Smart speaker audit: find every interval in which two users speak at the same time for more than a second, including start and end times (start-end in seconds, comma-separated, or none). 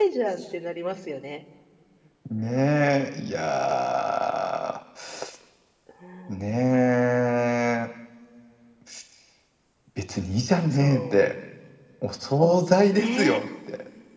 none